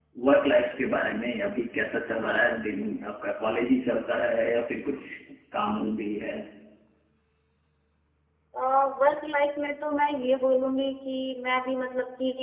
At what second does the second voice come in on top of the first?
none

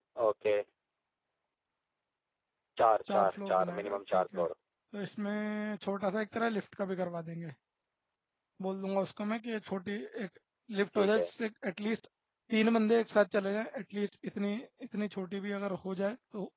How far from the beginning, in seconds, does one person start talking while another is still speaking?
3.1 s

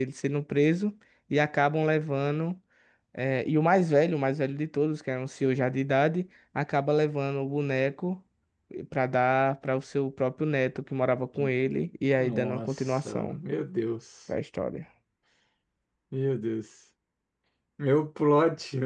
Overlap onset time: 12.2 s

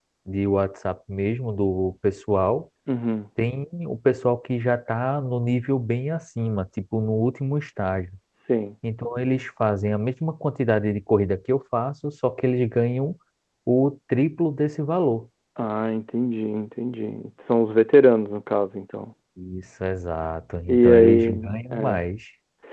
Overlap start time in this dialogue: 20.7 s

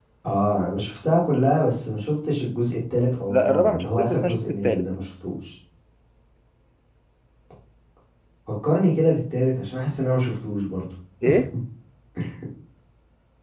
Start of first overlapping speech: 3.3 s

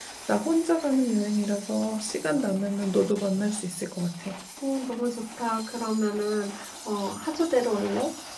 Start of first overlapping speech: none

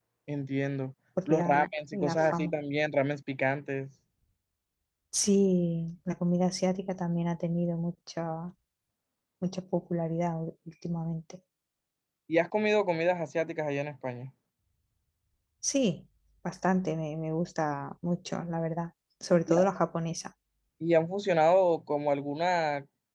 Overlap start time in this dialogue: 1.3 s

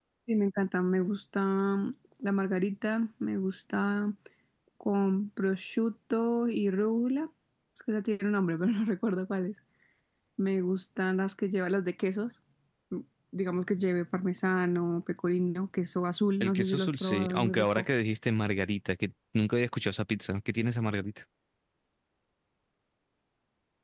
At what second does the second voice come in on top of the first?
16.4 s

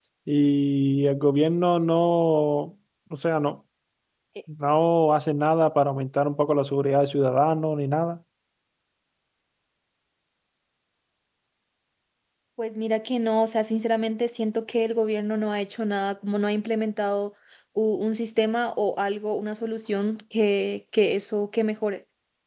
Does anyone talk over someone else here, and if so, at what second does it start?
none

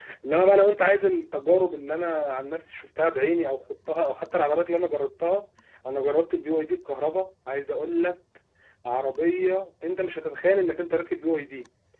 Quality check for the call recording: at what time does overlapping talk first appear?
none

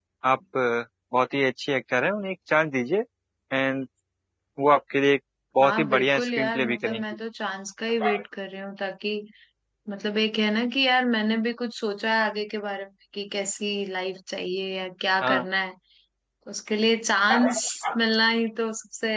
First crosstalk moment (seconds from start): 5.6 s

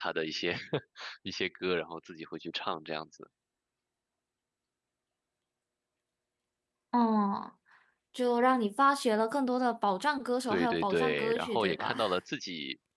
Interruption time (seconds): 10.5 s

